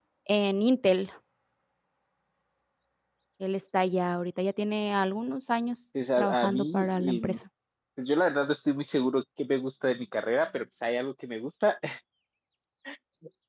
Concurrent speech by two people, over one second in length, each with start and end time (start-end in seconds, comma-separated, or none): 6.2-7.4